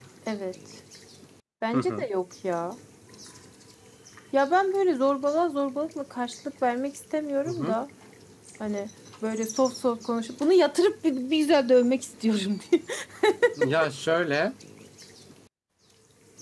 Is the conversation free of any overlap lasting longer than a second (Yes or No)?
Yes